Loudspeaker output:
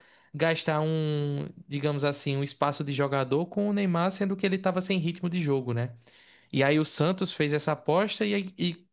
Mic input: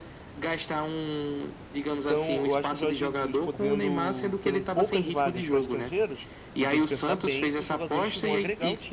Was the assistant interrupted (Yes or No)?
Yes